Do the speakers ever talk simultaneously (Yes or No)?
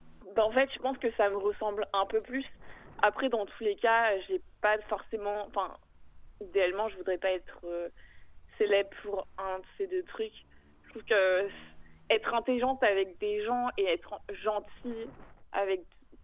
No